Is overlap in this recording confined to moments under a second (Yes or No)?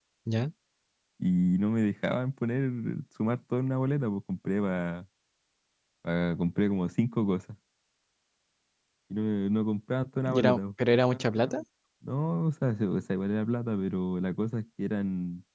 Yes